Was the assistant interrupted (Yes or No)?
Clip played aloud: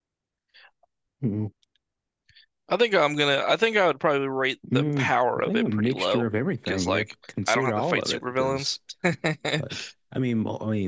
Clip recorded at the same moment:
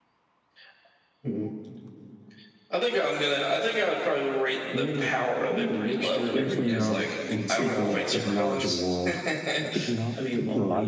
Yes